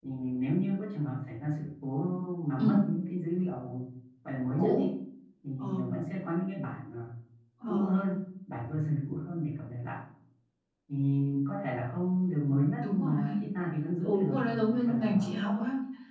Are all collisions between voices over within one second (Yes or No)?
No